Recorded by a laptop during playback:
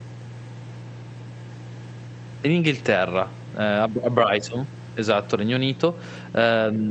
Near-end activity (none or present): present